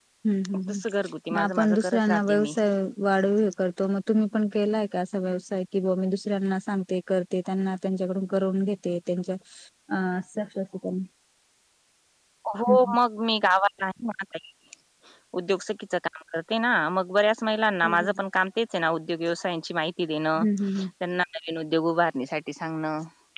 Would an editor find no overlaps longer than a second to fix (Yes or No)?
No